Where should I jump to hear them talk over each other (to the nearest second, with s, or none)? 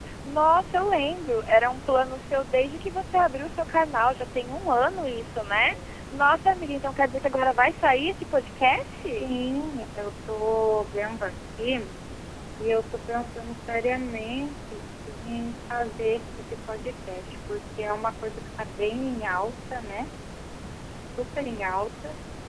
none